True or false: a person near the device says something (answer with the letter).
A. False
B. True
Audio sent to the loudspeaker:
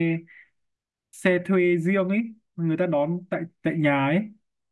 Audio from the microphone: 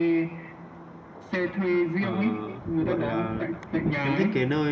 B